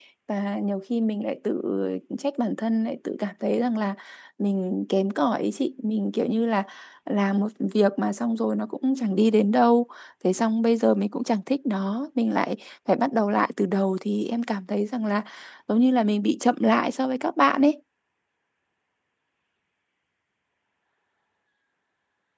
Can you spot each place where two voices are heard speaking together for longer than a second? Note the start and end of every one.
none

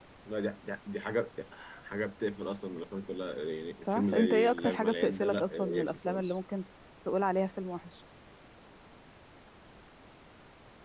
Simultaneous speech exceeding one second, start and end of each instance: 3.9-6.4

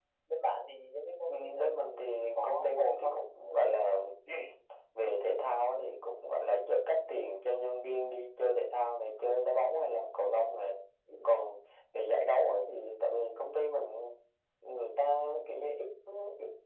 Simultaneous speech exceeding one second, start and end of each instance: 1.3-3.2

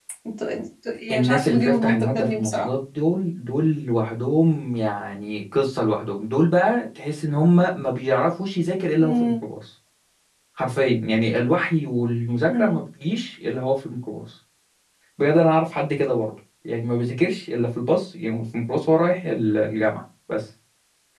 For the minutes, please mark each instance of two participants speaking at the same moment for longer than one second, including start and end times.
1.1-2.7

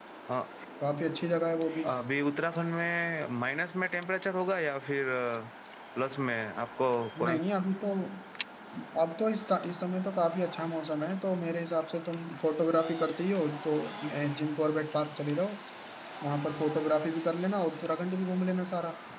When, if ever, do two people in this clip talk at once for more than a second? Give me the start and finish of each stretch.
none

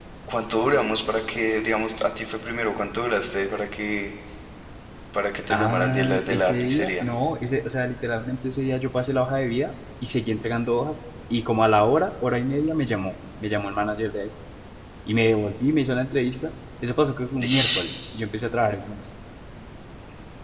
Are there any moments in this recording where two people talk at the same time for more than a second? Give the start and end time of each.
5.5-7.0

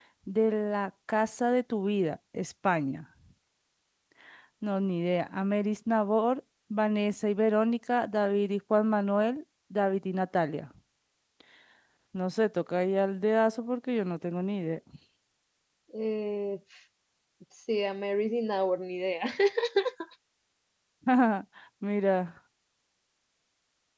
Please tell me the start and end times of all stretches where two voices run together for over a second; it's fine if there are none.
none

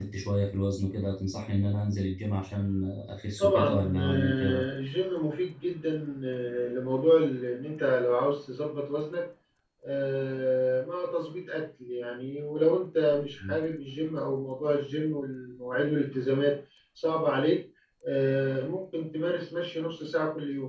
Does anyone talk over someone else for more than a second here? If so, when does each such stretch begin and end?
3.4-4.7

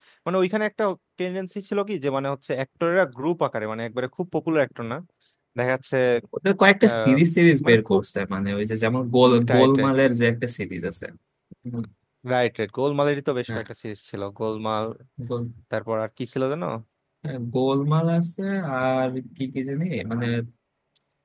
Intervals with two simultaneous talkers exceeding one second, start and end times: none

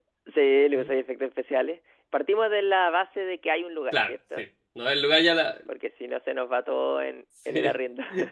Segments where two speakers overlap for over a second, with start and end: none

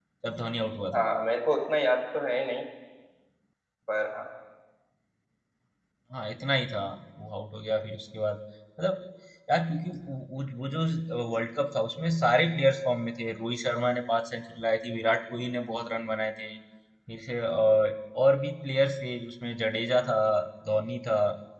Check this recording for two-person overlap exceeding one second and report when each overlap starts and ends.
none

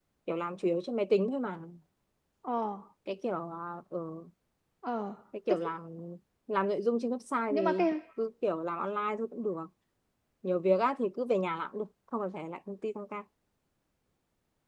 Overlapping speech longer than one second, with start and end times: none

